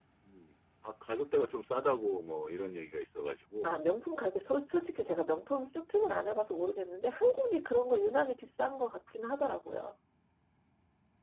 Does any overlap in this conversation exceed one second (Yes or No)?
No